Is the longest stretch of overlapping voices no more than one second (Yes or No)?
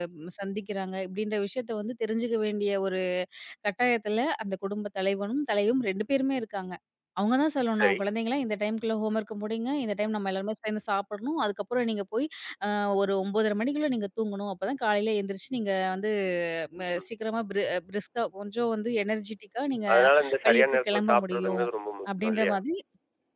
No